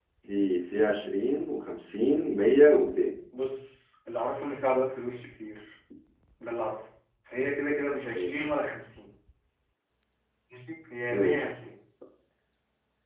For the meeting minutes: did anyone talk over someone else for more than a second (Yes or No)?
No